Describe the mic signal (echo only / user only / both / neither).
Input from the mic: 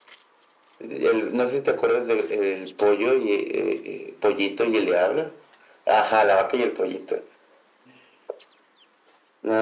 echo only